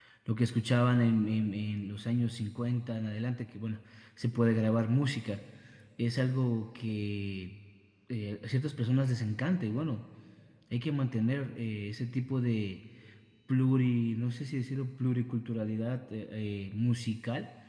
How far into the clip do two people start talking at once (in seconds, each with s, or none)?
none